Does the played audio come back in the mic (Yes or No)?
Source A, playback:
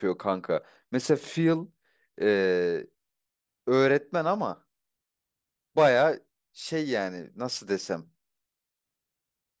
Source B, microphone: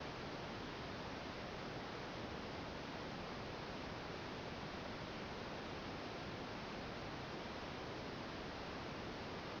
No